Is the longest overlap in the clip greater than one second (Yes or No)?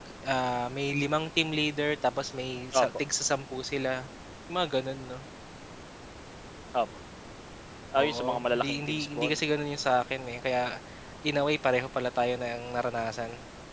Yes